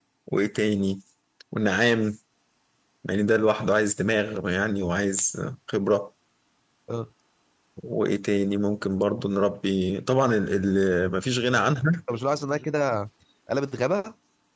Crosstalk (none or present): none